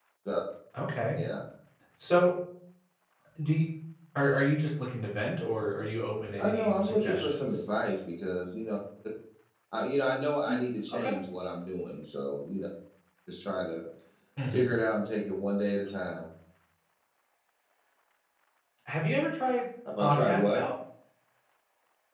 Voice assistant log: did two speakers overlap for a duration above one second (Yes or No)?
Yes